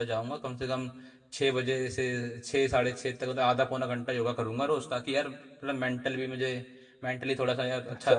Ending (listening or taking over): taking over